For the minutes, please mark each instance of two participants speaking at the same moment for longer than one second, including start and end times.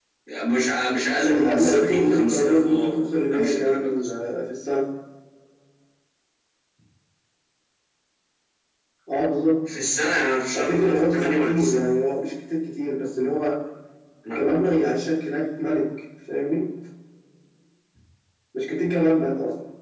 1.2-3.9, 10.5-11.8

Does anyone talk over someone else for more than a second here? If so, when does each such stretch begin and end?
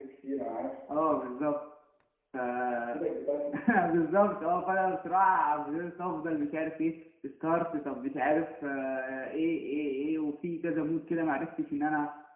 none

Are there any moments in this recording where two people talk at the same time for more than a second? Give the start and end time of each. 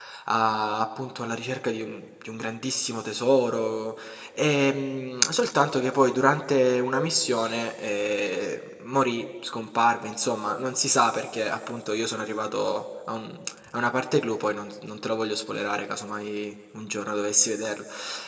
none

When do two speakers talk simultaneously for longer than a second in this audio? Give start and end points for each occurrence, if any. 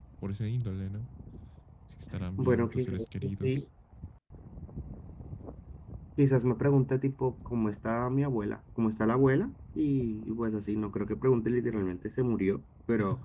2.4-3.6

